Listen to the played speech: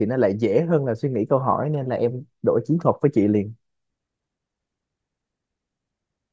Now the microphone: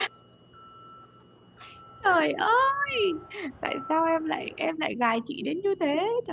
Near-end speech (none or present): present